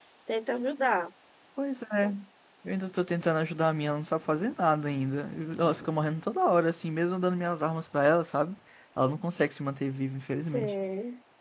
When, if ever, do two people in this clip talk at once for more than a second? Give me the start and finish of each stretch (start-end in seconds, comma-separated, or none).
none